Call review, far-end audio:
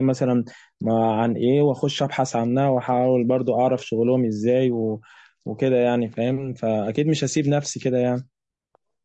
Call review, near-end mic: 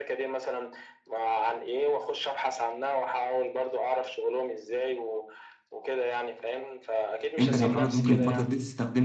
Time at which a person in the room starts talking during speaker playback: 7.4 s

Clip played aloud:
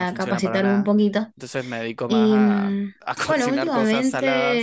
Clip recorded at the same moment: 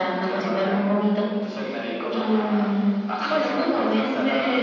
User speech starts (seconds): none

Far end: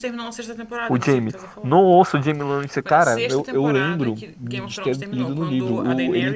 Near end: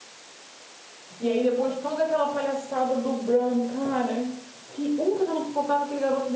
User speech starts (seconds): 1.2 s

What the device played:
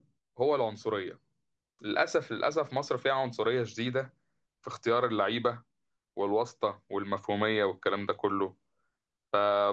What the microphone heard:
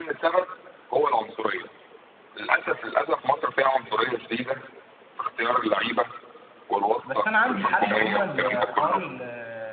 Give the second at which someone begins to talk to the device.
7.0 s

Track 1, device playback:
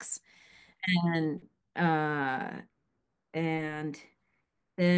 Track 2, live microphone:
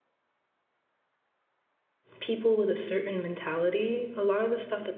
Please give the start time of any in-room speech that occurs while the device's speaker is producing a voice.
2.2 s

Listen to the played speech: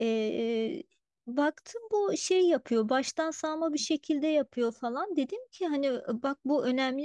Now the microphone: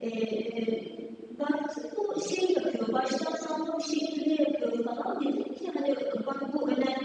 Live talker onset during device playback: none

